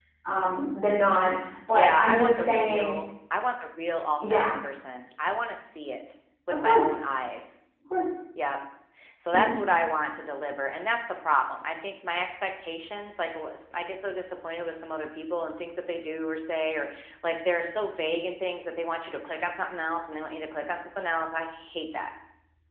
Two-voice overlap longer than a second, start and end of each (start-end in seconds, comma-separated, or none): 1.7-2.9